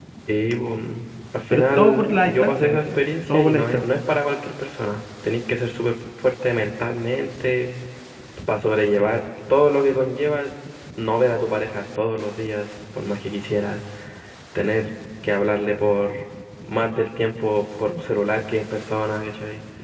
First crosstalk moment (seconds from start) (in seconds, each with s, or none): 1.5 s